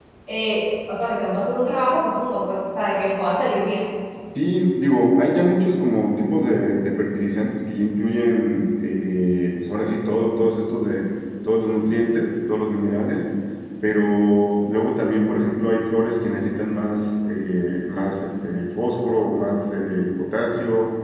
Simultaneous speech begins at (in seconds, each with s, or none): none